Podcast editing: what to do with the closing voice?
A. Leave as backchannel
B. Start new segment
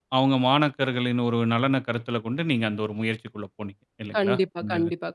B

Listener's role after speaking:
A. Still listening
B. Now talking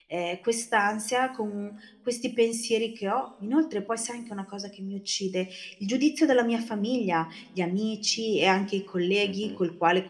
A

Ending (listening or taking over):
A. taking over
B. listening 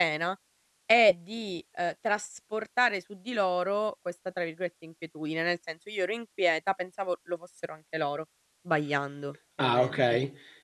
A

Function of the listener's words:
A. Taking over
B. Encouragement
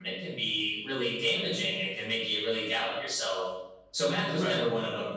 B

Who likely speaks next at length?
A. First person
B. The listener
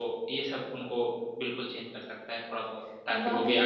B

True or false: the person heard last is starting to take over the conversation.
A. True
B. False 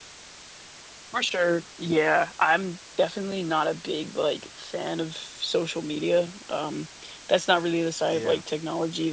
B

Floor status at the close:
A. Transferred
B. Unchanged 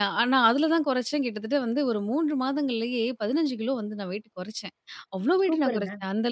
B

